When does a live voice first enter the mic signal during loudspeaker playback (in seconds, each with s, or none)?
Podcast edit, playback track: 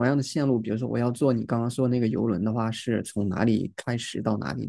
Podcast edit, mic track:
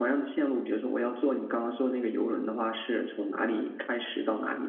none